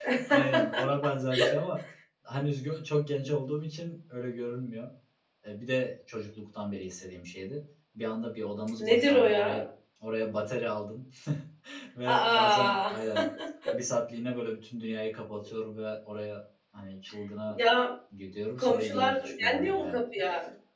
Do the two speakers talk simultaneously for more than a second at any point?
Yes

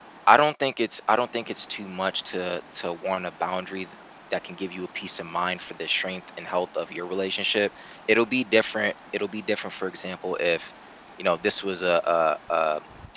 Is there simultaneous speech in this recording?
No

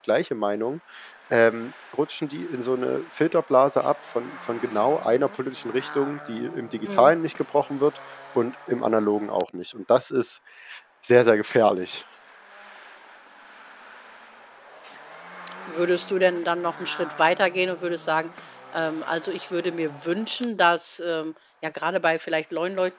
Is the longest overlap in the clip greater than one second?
No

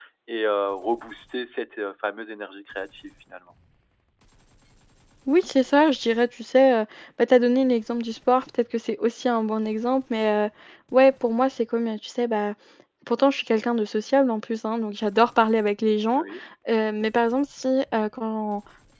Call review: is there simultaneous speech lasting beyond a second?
No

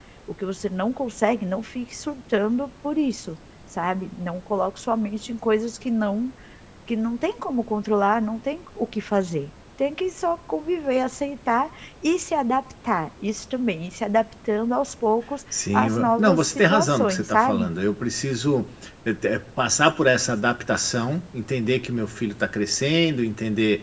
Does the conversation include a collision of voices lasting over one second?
Yes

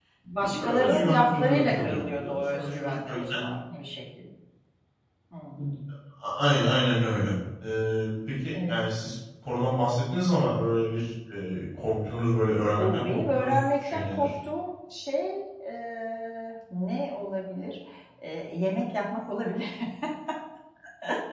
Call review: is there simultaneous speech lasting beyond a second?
Yes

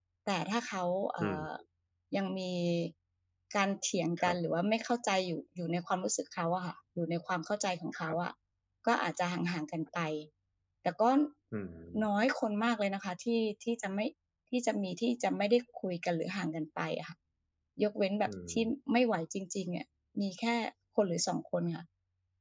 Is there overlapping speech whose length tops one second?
No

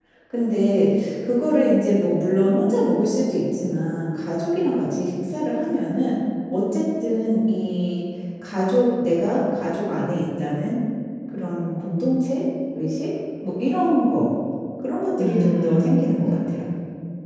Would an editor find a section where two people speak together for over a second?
Yes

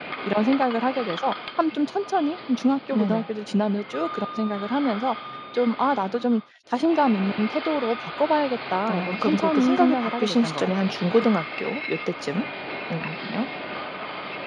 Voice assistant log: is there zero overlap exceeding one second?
No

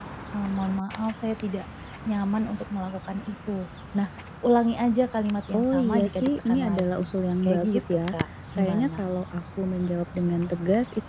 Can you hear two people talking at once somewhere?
Yes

